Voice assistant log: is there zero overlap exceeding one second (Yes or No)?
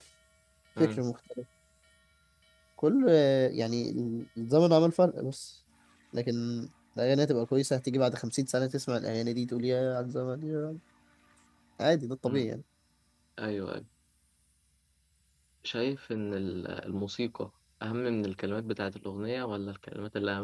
Yes